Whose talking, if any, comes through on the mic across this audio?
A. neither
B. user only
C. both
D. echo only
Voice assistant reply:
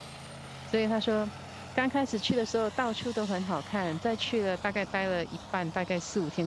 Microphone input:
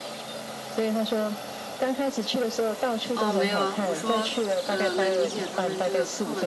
C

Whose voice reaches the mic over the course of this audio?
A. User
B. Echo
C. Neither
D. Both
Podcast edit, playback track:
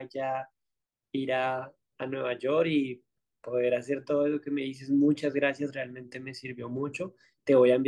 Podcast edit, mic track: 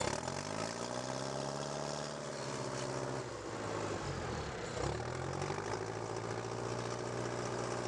C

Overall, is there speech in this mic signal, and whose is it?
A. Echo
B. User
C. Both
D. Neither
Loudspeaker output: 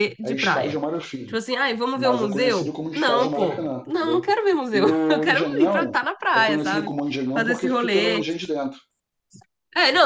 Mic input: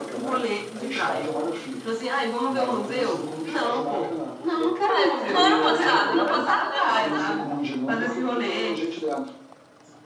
C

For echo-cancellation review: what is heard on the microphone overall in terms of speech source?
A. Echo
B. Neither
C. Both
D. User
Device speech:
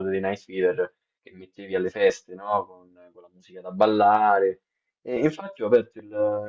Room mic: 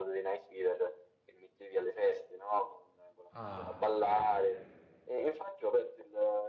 C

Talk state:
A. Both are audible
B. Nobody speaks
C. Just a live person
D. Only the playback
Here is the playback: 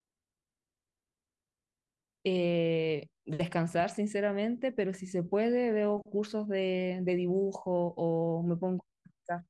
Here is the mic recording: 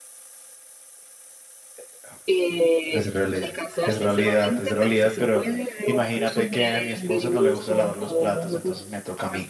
A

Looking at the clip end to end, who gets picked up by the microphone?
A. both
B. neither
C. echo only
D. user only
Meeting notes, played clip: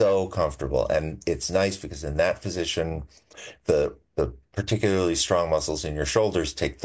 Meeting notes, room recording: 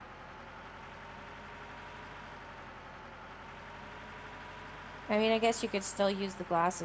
D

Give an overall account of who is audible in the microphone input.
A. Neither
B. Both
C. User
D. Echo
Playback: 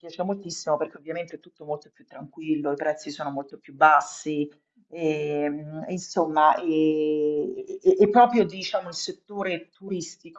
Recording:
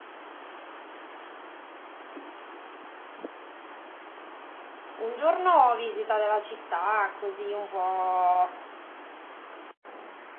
C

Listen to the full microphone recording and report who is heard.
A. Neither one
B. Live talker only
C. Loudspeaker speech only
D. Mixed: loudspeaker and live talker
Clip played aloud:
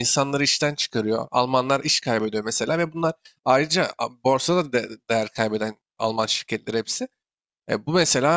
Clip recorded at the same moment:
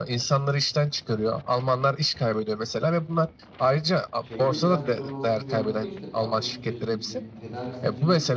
D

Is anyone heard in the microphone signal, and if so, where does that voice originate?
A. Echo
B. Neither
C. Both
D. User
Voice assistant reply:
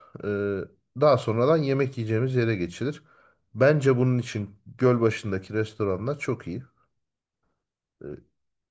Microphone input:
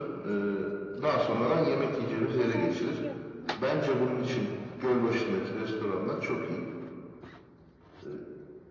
C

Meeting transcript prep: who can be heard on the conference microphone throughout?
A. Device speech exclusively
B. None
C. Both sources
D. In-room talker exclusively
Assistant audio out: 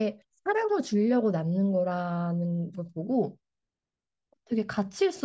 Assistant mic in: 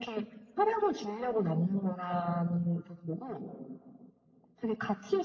A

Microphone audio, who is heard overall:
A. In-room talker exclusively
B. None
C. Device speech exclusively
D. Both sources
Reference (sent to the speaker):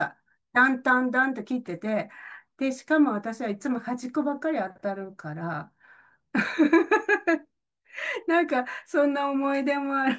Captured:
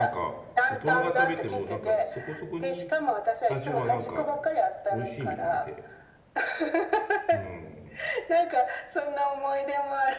D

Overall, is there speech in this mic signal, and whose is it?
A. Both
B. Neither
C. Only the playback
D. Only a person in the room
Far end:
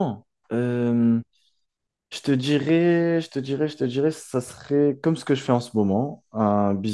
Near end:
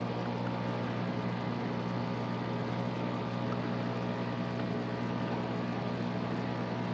B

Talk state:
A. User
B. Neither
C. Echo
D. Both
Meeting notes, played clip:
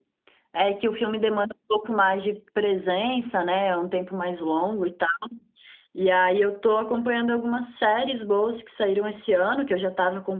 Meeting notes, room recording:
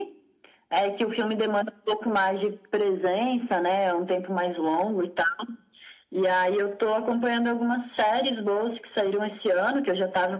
C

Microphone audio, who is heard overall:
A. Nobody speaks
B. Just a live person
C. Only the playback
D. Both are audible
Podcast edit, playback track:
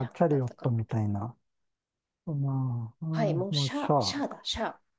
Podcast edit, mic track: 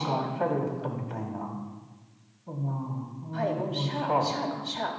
C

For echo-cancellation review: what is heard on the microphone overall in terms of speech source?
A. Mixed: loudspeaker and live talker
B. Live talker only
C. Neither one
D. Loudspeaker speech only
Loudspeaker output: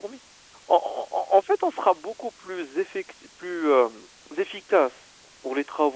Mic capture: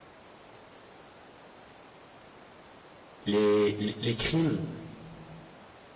B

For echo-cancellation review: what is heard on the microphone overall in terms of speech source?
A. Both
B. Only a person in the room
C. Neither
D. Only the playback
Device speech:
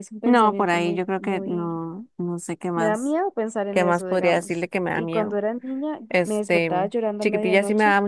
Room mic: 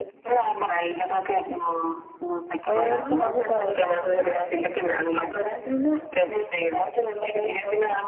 A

